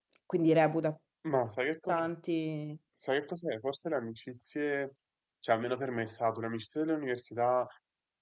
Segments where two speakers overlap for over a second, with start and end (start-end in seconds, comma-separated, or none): none